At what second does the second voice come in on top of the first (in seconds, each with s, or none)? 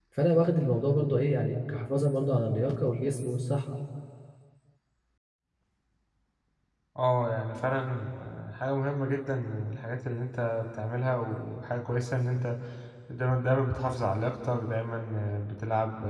none